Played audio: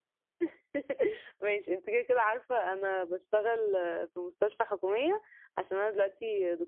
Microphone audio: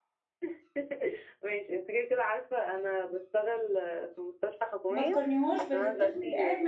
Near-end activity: present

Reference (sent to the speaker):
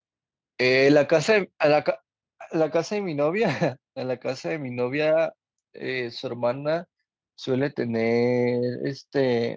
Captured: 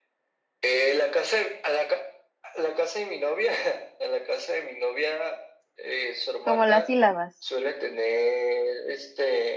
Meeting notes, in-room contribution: present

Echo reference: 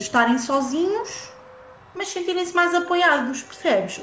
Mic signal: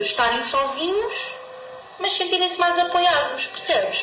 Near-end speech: none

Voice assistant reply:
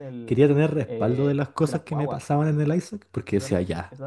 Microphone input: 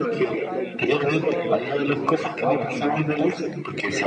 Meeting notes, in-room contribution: present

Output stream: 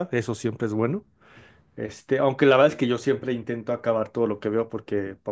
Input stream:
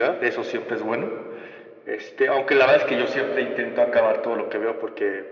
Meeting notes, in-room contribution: none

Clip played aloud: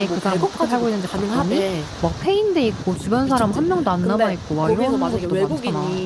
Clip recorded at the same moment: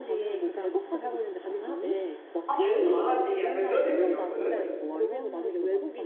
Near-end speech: present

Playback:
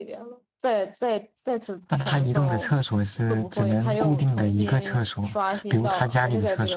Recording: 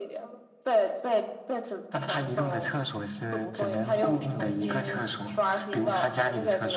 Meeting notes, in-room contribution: none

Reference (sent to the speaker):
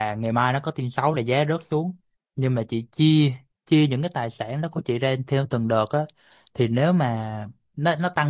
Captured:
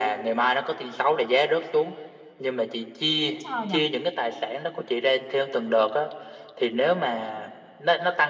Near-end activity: present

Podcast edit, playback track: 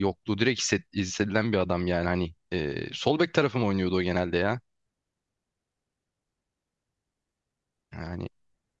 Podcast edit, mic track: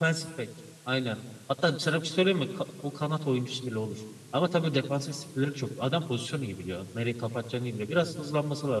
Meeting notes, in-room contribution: present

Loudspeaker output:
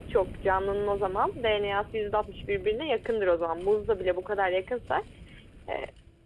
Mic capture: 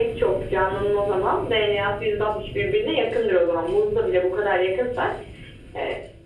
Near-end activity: none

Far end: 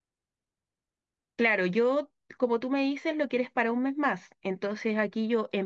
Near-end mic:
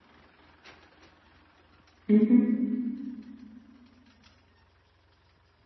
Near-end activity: present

